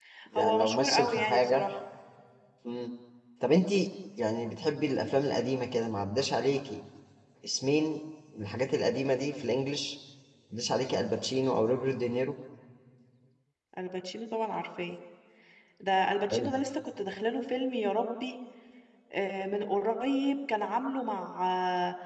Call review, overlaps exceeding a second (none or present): present